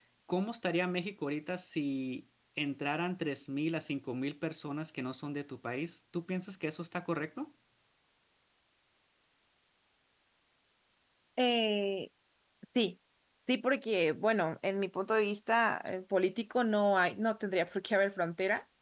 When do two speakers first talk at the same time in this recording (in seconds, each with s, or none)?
none